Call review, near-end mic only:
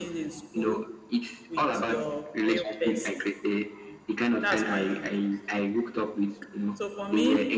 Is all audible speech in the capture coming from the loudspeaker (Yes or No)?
No